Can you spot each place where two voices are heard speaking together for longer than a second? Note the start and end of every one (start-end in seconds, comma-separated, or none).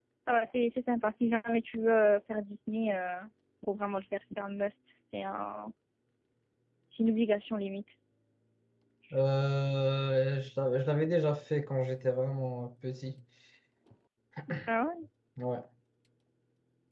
none